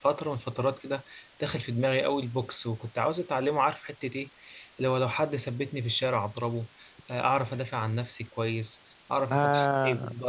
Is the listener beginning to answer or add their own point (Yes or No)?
No